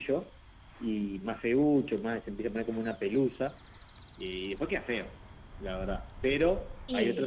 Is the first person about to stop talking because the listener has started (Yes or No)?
No